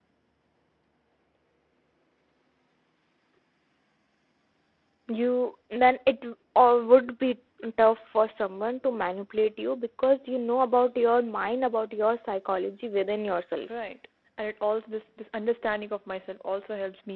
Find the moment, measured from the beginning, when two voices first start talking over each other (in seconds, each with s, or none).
none